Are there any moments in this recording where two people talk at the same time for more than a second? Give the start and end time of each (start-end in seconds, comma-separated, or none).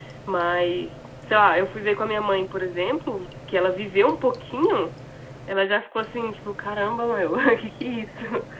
none